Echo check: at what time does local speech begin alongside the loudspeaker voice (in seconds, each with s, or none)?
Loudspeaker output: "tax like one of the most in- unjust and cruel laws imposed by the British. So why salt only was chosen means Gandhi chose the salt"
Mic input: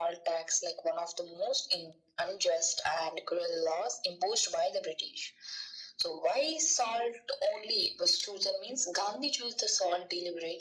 none